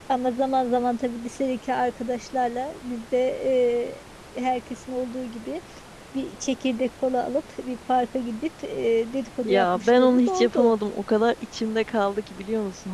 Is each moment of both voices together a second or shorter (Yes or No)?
No